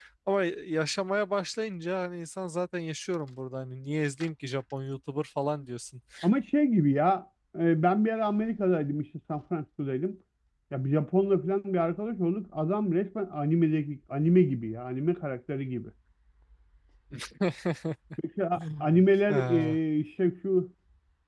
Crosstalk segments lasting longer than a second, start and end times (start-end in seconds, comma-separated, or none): none